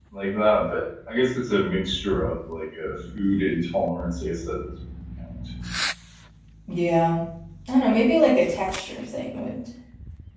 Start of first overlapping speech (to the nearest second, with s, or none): none